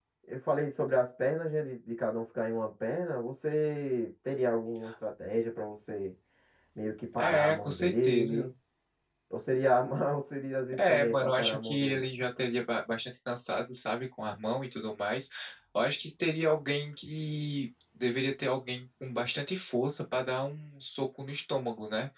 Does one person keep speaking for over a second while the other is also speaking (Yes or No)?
Yes